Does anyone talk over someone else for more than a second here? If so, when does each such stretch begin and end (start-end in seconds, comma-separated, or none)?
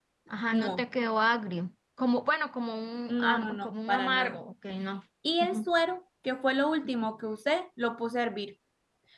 3.1-4.3